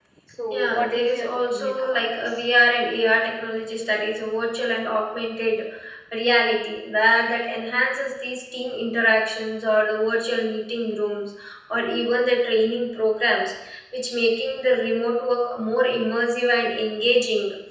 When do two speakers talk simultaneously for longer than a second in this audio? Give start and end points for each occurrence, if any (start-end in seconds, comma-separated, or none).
0.5-2.5